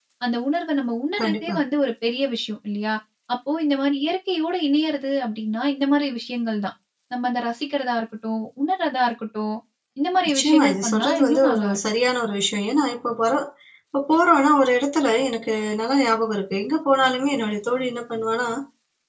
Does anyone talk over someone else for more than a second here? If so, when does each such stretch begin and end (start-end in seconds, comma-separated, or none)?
10.3-11.8